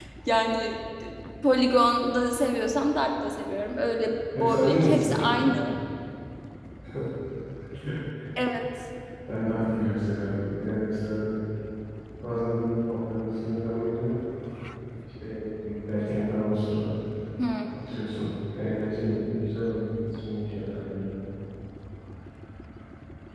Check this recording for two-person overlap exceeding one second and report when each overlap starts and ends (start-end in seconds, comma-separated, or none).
4.3-5.7